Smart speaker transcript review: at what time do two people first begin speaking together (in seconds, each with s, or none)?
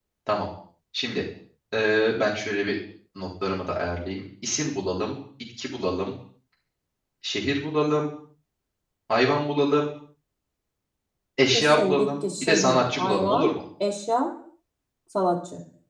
11.5 s